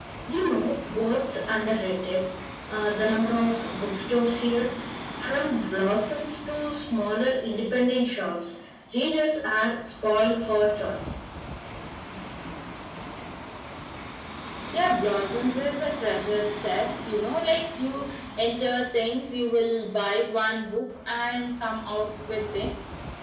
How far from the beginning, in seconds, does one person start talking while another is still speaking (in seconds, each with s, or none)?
none